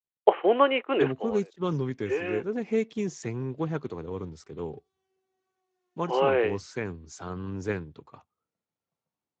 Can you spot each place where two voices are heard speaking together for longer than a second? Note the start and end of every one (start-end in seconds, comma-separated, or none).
none